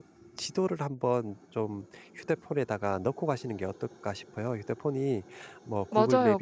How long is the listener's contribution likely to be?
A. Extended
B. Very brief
A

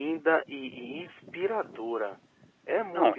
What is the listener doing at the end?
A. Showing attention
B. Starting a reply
B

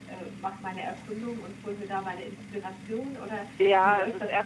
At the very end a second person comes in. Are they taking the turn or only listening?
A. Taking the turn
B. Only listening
A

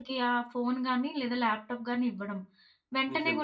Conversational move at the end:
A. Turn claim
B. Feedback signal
B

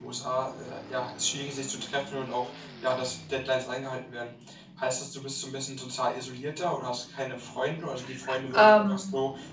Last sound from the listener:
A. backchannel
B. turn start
A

